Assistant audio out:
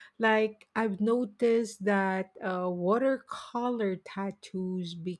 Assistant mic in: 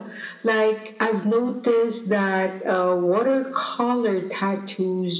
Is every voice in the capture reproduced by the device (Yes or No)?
Yes